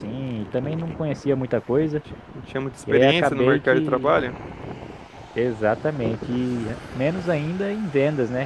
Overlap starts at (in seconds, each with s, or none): 2.9 s